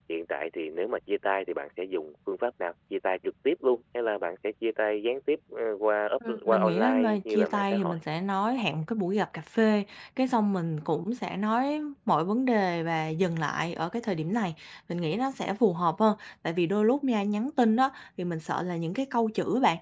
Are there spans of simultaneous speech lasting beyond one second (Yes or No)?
Yes